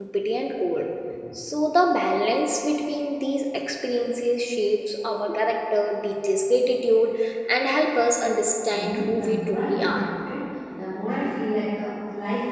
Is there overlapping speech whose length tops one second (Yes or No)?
Yes